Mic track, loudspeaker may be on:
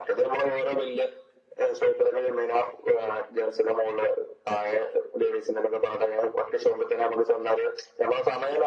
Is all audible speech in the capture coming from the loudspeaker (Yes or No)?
Yes